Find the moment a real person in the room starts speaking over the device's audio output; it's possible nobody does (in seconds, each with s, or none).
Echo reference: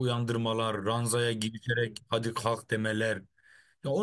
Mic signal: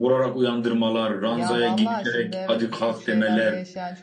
1.3 s